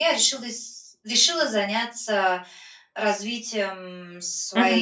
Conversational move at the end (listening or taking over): listening